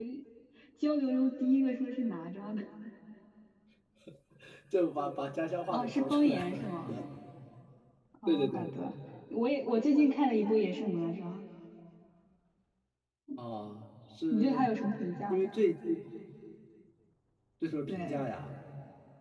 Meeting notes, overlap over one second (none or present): present